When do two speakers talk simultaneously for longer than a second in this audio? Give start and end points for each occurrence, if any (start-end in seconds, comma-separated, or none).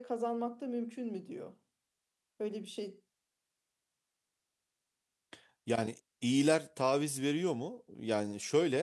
none